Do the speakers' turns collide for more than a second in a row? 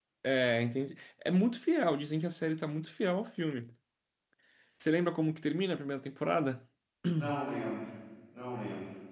No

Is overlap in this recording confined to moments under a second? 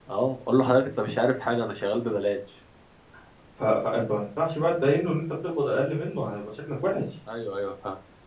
Yes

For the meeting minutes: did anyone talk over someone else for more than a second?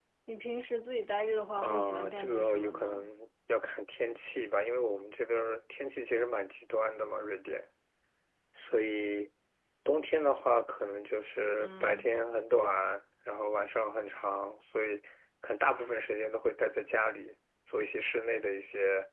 Yes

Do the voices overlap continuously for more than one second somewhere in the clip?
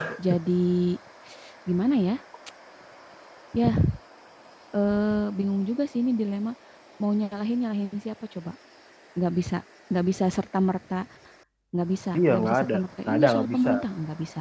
Yes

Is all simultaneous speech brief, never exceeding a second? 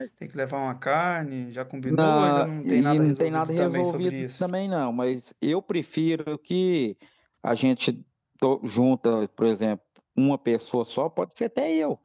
No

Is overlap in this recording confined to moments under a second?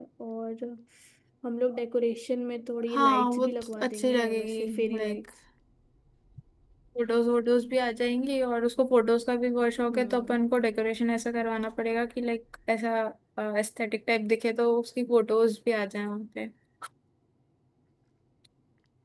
No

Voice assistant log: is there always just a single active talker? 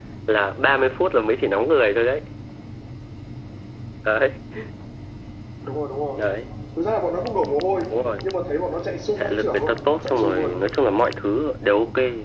No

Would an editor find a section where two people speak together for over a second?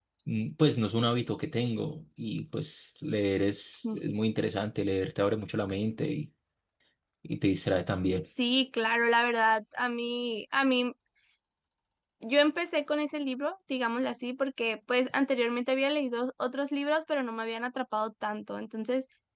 No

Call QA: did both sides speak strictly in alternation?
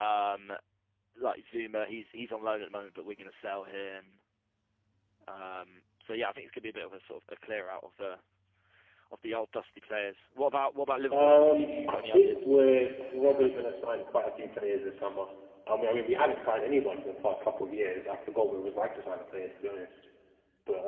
No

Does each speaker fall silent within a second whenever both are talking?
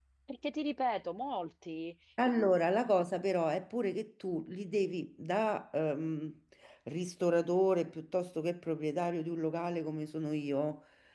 Yes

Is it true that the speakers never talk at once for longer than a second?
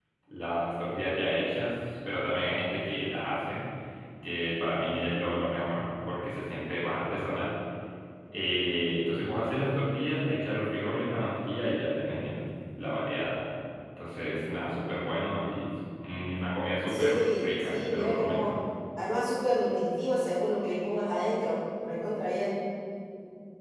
No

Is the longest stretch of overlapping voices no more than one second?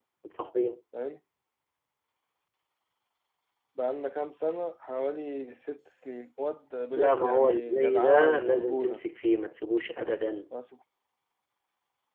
No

